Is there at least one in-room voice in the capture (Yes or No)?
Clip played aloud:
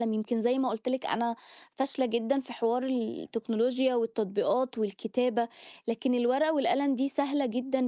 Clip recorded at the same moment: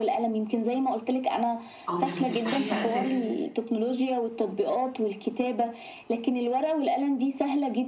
Yes